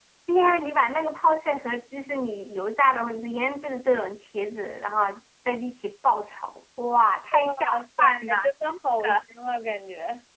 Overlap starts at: 7.3 s

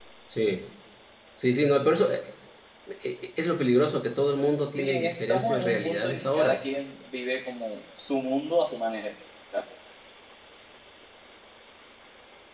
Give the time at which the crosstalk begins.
4.8 s

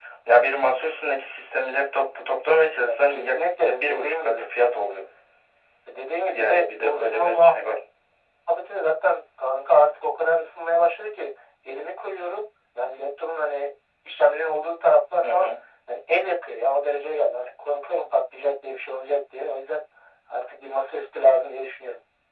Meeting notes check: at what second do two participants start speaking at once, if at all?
2.8 s

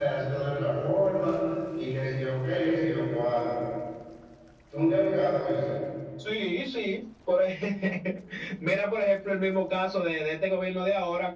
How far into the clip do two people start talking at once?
none

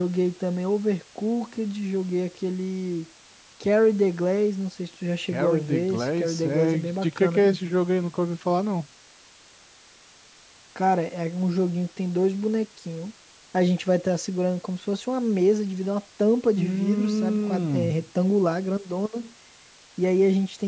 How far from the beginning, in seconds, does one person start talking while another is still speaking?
5.3 s

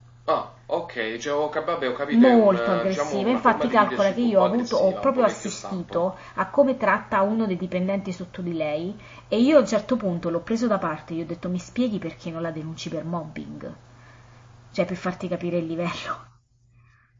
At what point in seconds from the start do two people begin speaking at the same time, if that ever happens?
2.1 s

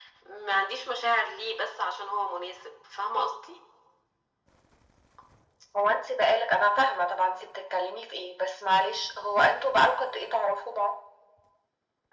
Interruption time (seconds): none

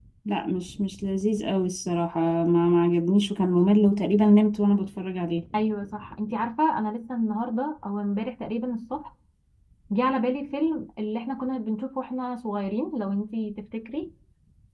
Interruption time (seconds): none

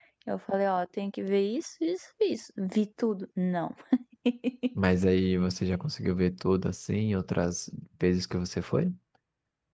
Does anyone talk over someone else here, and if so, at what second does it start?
none

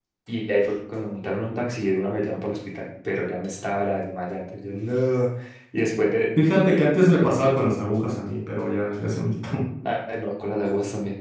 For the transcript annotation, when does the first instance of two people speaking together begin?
none

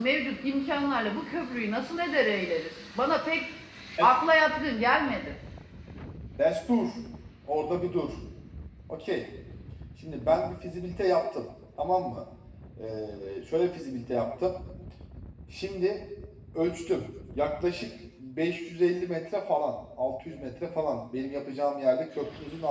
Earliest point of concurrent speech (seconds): none

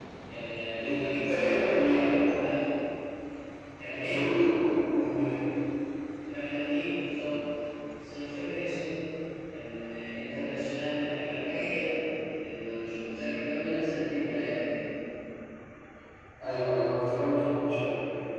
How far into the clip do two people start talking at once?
0.8 s

